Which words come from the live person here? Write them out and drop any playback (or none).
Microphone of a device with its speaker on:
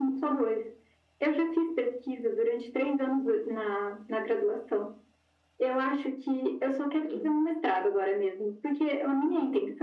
none